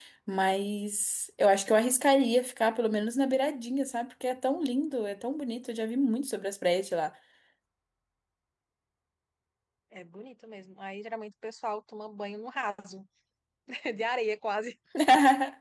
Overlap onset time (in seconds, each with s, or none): none